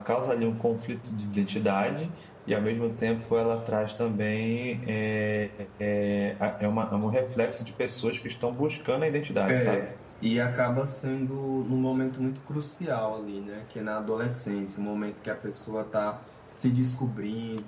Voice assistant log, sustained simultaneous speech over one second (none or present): none